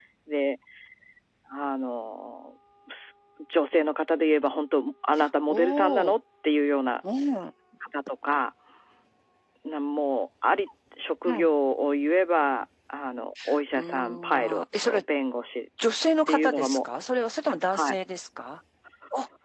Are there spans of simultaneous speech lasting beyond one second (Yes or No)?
Yes